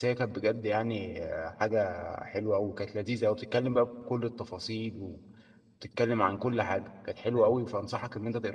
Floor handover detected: No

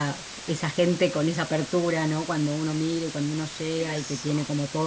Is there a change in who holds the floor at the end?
No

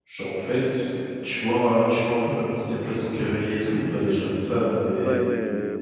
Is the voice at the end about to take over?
Yes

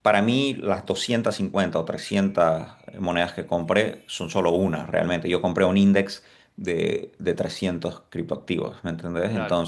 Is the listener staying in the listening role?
Yes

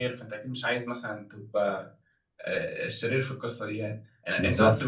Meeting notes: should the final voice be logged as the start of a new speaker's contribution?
No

